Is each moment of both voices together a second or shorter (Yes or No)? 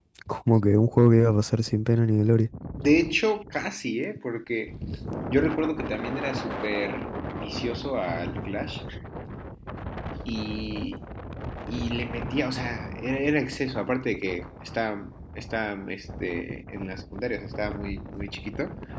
Yes